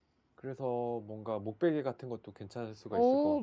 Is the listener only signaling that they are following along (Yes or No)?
No